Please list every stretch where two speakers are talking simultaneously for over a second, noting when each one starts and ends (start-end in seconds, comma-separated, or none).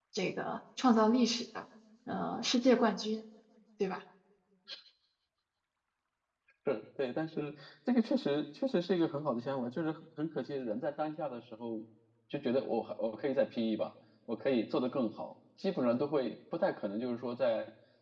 none